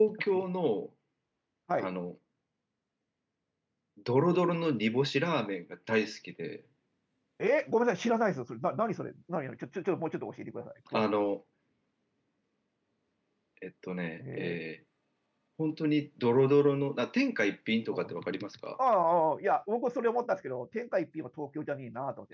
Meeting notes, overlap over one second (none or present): none